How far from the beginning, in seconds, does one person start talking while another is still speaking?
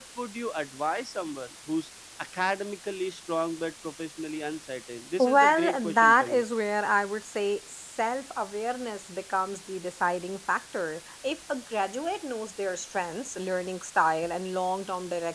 5.2 s

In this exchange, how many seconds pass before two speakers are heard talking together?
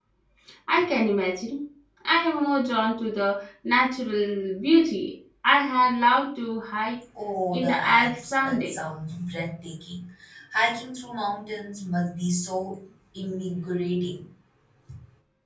7.5 s

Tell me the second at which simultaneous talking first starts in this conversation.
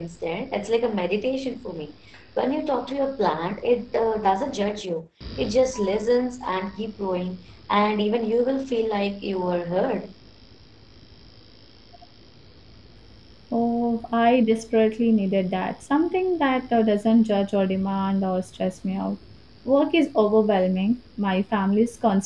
none

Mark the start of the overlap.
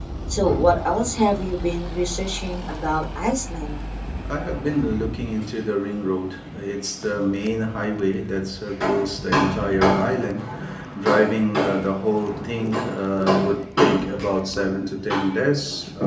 none

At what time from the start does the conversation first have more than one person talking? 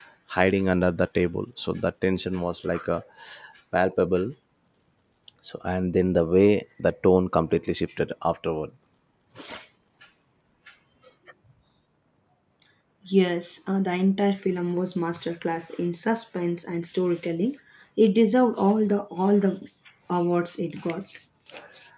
none

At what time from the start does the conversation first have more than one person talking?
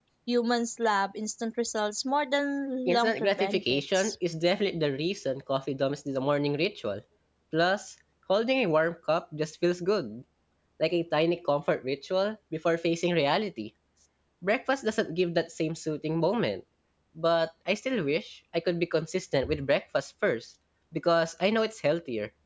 2.9 s

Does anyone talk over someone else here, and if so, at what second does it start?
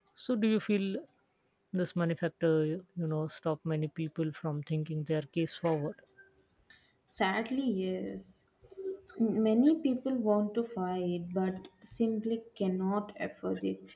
none

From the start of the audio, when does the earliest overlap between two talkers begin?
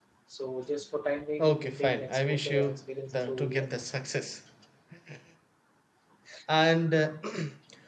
1.4 s

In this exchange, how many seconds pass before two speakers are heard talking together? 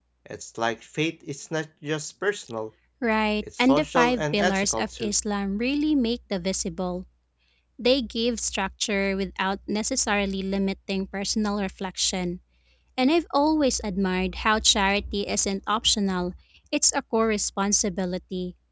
3.4 s

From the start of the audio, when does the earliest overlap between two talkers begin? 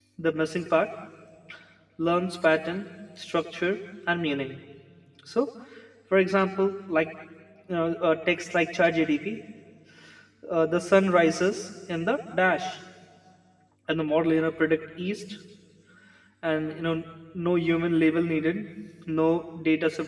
none

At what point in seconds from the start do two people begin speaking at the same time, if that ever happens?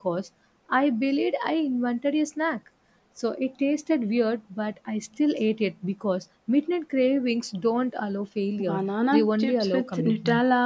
8.6 s

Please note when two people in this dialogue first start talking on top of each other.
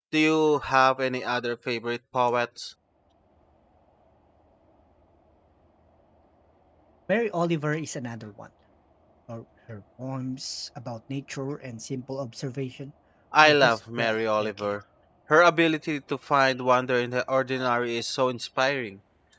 13.4 s

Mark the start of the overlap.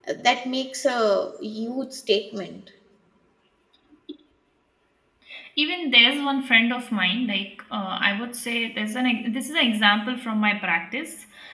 none

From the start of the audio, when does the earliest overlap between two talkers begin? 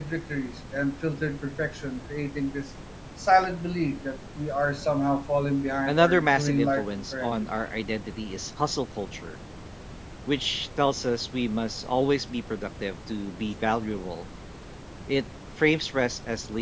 5.9 s

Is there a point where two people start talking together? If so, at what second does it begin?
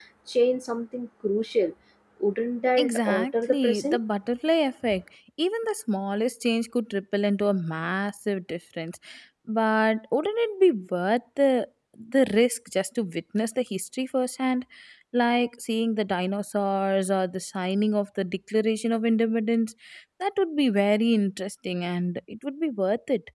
2.8 s

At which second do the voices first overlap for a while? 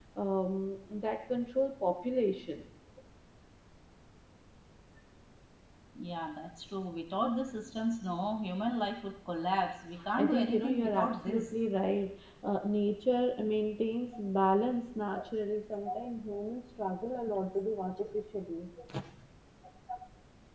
10.2 s

